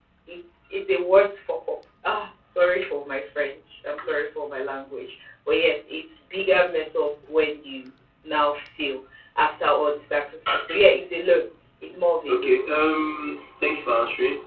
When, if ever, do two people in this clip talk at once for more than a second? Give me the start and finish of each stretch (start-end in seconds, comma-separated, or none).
none